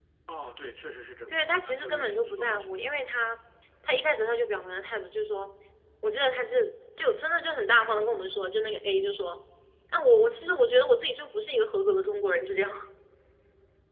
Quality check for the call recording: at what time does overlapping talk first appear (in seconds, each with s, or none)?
1.3 s